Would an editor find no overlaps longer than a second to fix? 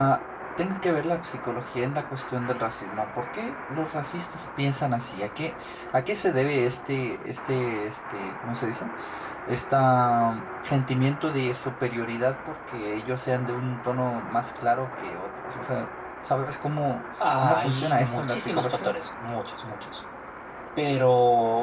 No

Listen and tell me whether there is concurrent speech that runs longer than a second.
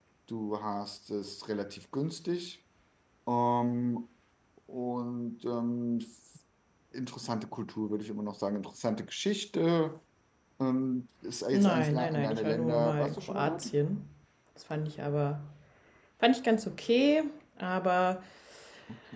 Yes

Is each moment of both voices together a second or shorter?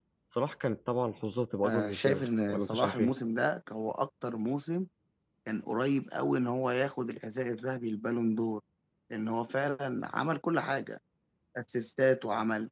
No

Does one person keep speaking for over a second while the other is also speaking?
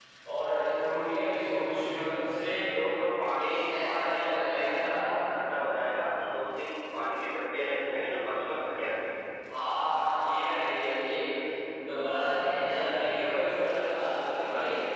Yes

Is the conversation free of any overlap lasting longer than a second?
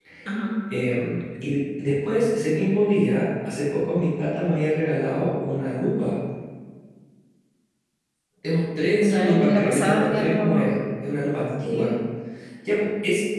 No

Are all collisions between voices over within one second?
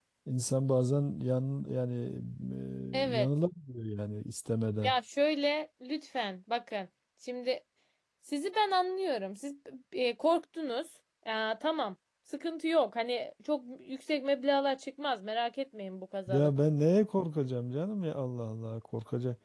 Yes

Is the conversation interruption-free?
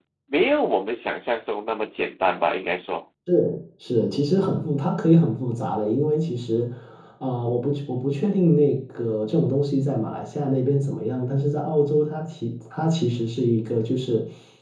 Yes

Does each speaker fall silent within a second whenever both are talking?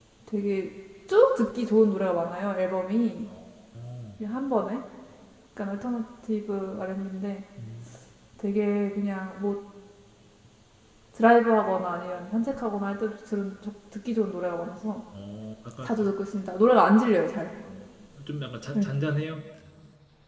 Yes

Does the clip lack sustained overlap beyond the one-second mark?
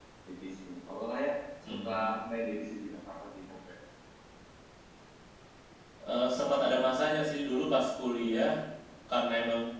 Yes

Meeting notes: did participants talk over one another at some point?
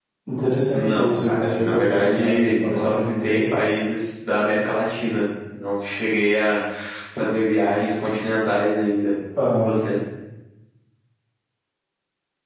Yes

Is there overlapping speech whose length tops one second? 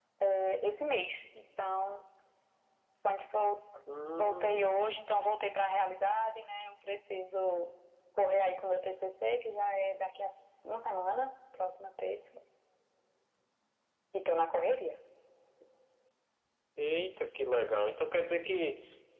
No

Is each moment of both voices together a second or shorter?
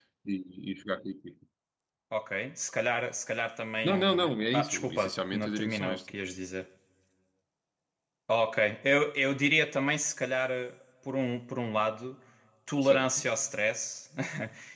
No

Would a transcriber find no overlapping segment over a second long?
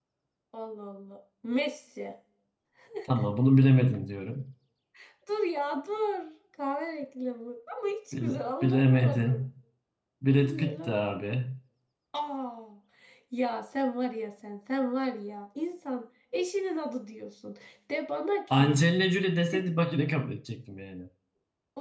No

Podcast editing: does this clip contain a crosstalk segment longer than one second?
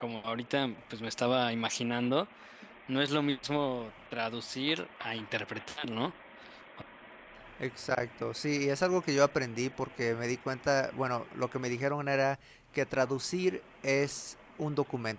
No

